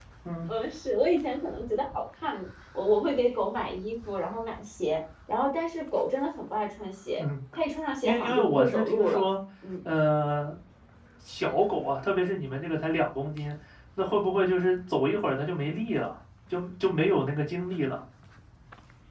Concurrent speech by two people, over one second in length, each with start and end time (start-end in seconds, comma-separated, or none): 8.0-9.2